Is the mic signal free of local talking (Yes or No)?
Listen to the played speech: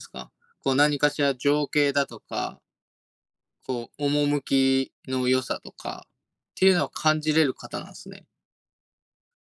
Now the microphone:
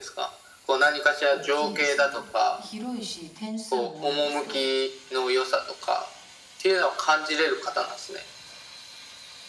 No